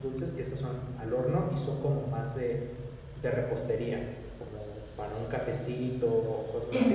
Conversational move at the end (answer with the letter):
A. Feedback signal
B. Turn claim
B